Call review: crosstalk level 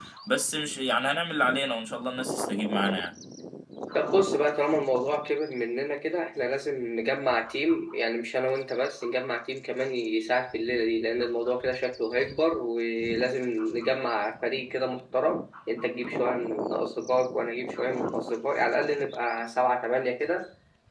none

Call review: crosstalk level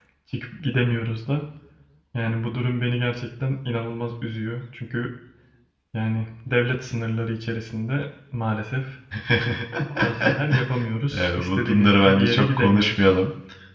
present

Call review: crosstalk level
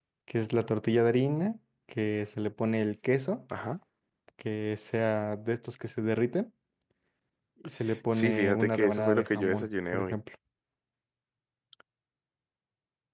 present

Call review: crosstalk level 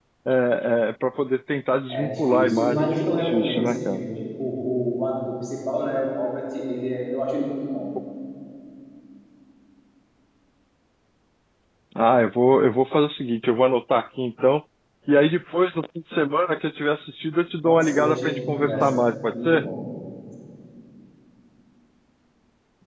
present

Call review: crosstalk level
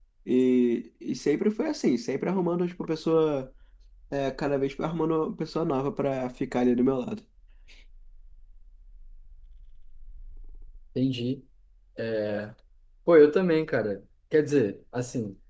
none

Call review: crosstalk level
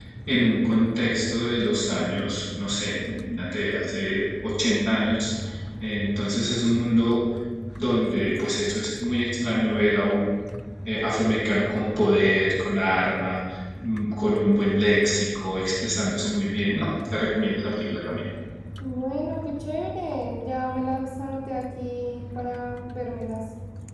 none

